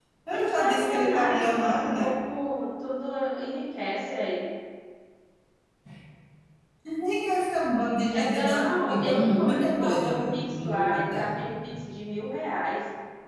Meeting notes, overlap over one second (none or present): present